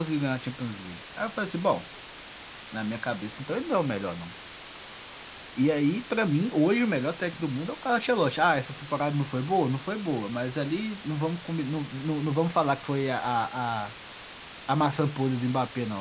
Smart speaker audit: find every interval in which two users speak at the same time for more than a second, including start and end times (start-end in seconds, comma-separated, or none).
none